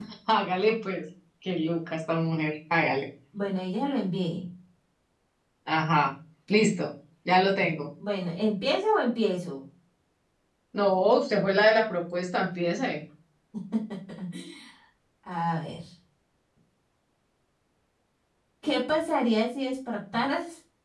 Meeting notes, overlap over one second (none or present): none